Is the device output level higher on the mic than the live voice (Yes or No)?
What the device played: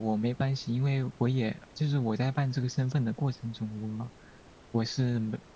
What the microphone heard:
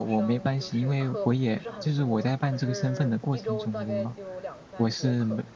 Yes